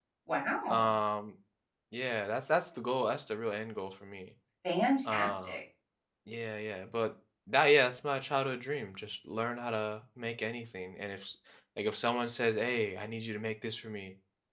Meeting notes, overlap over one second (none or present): none